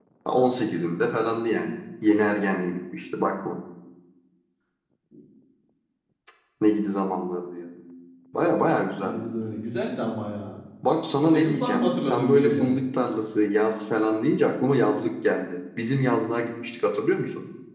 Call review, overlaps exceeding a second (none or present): present